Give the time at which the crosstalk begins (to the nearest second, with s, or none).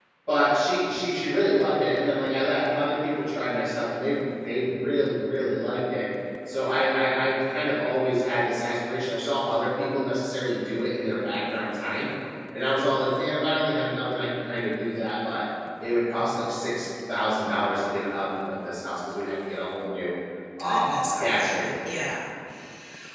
21 s